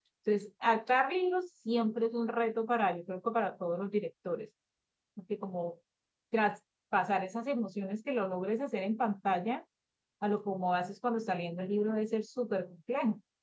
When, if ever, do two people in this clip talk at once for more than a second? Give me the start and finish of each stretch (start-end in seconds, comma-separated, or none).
none